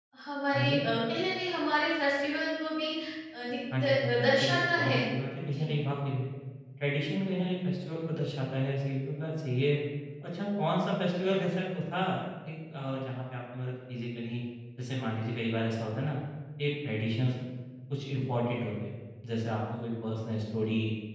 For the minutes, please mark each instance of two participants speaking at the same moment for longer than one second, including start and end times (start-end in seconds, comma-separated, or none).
3.7-5.0